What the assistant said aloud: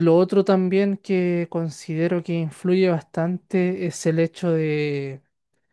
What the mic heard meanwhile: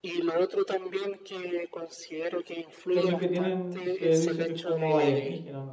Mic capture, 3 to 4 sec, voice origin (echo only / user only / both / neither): both